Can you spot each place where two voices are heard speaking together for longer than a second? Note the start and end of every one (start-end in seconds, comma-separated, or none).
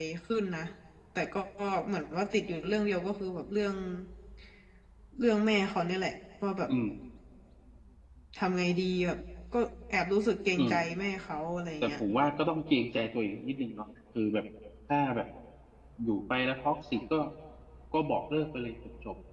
none